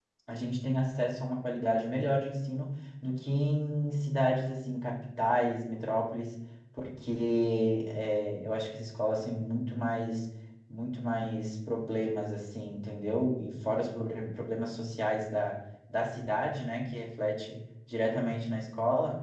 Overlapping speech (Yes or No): No